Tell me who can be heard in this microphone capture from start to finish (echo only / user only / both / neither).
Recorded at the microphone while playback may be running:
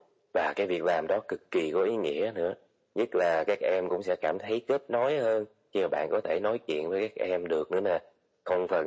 echo only